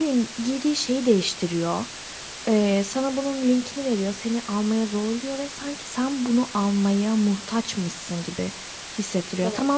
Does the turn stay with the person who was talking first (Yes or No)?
Yes